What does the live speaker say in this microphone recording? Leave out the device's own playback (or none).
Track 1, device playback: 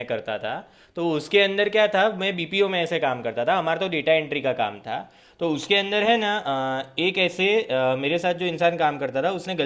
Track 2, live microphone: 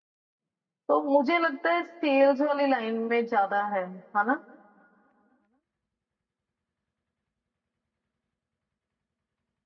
तो मुझे लगता है सेल्स वाली लाइन में ज्यादा है है ना